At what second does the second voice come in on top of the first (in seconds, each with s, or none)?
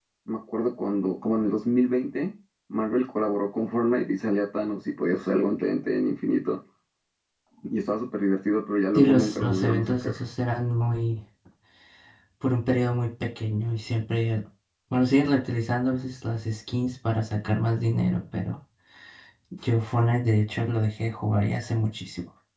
8.9 s